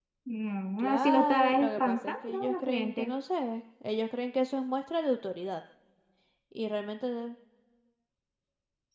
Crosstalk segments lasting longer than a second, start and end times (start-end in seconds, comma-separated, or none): 0.8-3.1